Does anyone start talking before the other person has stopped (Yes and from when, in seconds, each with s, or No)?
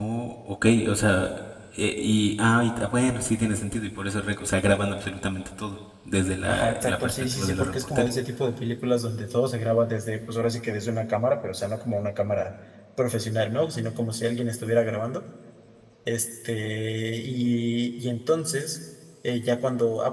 Yes, from 6.5 s